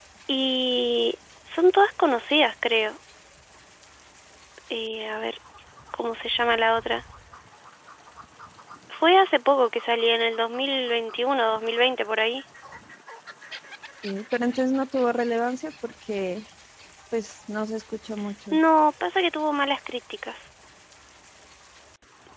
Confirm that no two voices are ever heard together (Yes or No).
Yes